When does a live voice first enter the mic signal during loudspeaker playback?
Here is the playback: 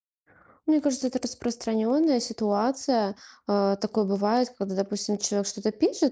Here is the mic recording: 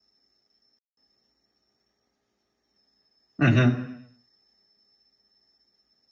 3.4 s

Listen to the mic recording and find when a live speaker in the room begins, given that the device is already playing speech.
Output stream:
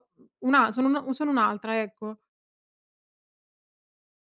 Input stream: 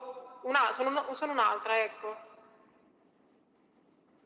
none

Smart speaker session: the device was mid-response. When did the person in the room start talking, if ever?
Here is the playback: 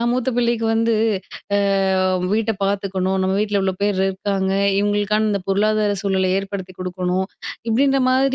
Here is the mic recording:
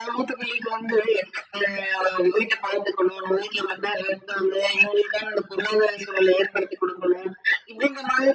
none

